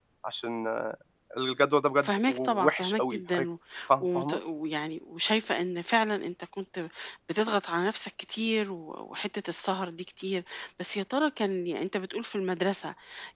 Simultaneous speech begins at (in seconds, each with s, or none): 2.0 s